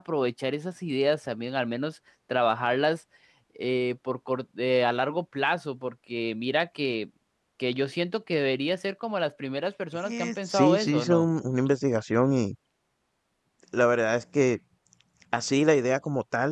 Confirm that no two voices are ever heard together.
No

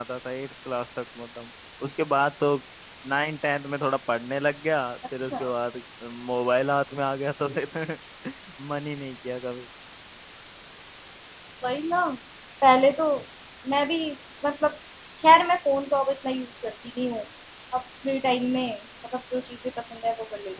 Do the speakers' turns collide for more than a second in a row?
No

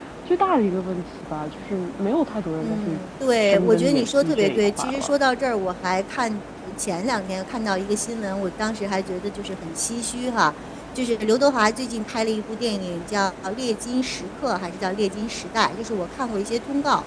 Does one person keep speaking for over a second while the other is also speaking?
Yes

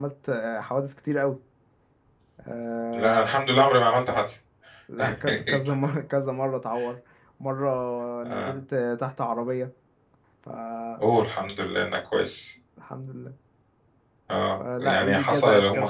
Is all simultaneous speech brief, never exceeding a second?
No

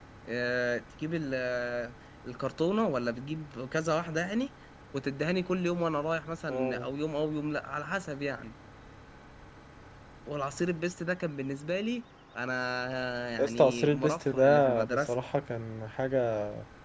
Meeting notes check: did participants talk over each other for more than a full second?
Yes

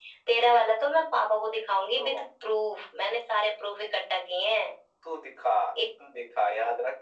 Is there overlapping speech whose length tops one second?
No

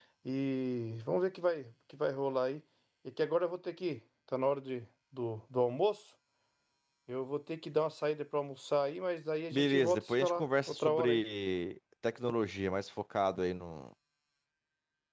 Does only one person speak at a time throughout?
No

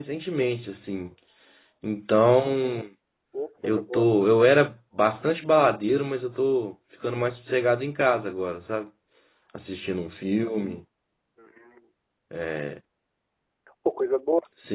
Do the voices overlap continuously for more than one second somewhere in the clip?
No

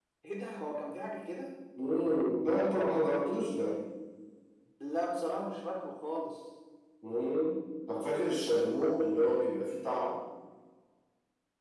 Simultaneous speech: No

